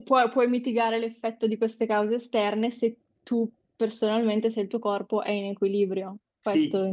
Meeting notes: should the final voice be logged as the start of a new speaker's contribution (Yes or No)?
Yes